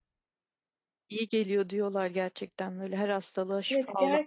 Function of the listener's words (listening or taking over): taking over